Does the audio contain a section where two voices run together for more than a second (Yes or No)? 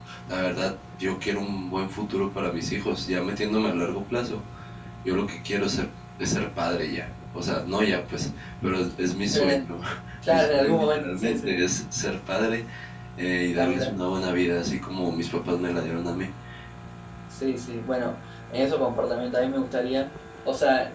Yes